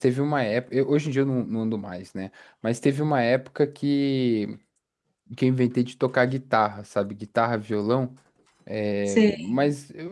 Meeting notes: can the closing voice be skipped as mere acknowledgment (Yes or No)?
Yes